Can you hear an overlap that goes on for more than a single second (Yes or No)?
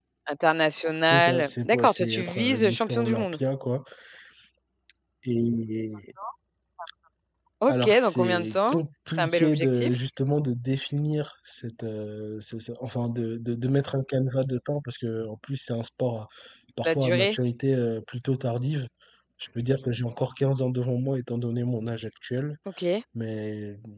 Yes